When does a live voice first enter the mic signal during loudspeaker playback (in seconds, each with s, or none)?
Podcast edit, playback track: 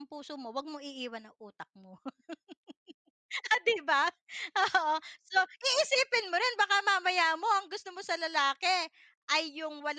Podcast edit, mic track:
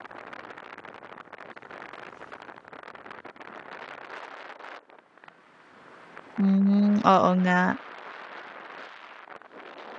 6.4 s